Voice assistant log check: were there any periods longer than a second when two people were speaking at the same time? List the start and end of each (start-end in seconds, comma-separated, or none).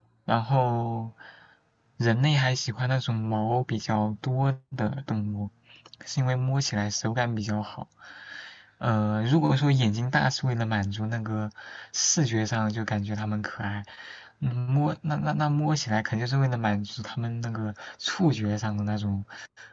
none